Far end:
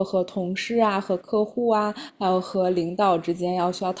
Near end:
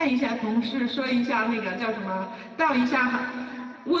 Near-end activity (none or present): present